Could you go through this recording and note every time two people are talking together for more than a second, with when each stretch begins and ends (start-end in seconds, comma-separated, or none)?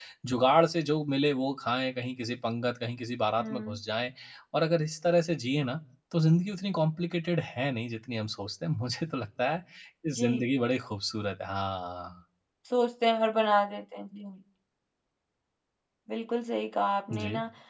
none